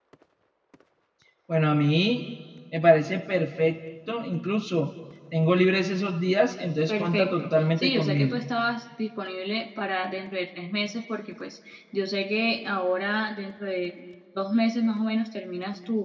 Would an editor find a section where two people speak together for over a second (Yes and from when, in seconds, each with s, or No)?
Yes, from 6.9 s